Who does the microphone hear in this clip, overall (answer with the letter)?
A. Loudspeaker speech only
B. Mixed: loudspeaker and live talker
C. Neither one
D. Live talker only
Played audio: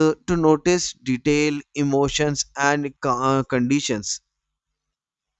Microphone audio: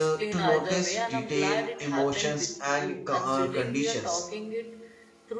B